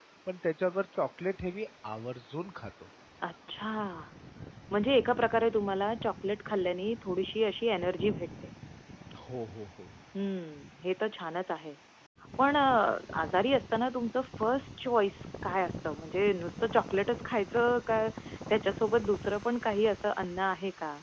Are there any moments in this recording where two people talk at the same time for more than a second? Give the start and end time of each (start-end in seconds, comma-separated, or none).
none